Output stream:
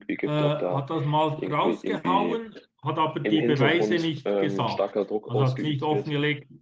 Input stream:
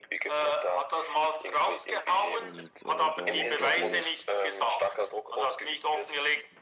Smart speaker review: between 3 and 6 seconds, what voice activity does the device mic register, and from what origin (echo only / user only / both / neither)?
both